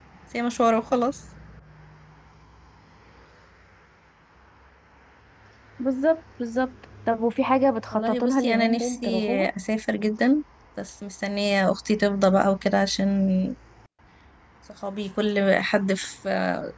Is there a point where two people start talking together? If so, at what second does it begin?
7.9 s

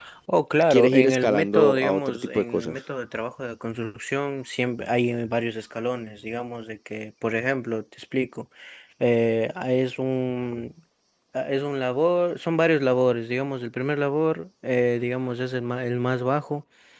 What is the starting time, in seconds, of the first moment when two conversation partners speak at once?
0.7 s

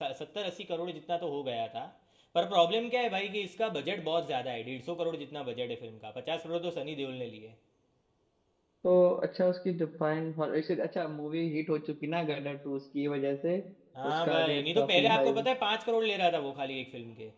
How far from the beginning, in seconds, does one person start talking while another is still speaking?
14.1 s

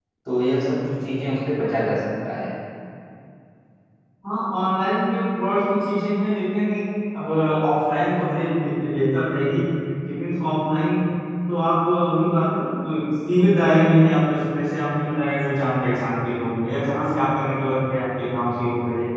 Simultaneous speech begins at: none

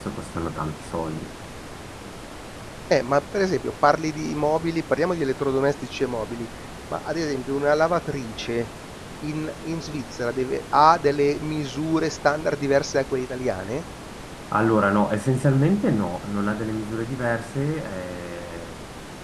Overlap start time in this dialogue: none

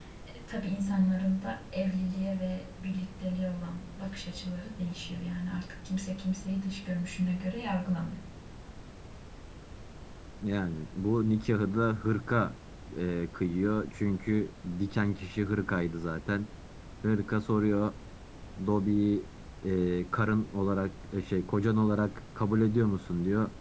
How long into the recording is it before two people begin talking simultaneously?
none

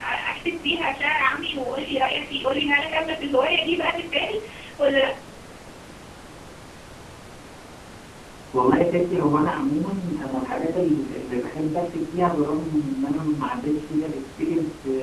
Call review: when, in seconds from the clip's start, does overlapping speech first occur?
none

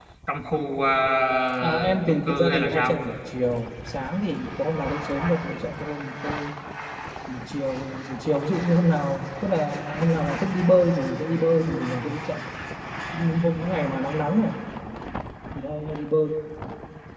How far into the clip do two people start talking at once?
1.6 s

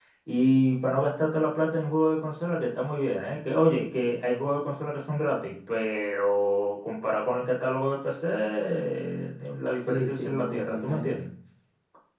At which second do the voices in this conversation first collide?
9.8 s

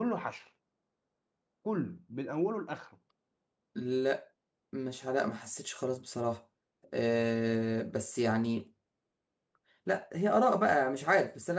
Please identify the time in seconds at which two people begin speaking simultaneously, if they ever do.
none

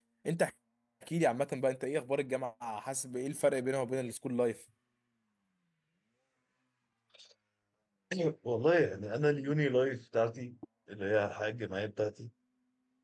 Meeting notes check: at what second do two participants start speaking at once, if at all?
none

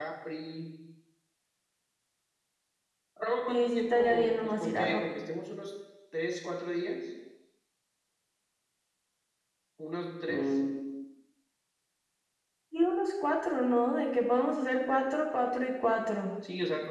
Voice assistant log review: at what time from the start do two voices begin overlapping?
3.5 s

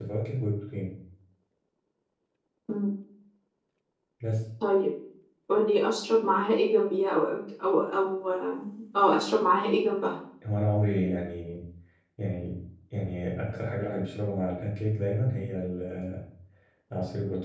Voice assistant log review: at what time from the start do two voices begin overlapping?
none

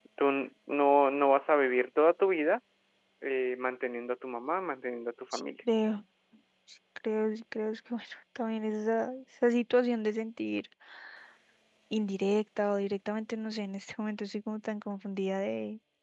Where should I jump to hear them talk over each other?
none

